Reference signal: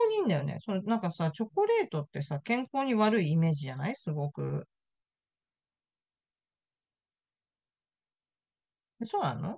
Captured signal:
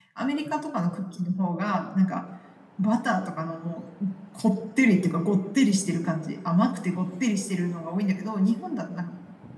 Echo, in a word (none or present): none